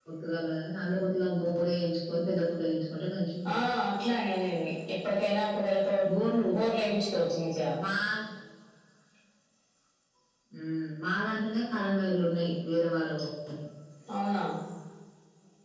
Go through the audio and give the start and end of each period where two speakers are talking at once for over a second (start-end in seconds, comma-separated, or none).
none